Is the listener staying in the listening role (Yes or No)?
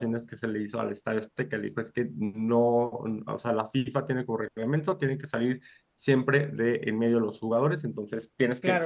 No